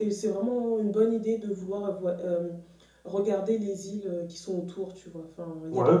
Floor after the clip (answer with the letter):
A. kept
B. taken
B